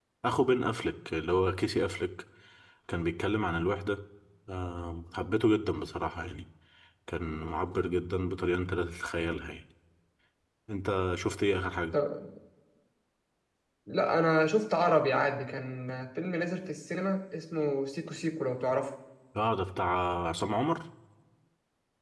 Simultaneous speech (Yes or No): No